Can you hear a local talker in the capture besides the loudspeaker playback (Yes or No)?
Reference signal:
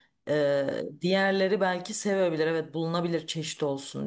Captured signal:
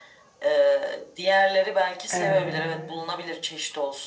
Yes